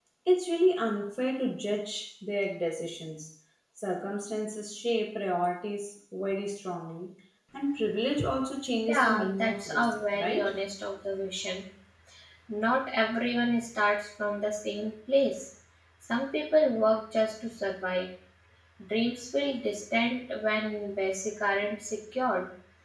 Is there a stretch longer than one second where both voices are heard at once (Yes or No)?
Yes